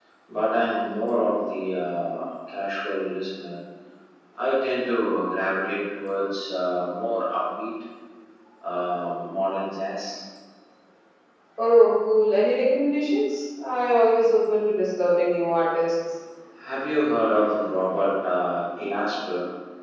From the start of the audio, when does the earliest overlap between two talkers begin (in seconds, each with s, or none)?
none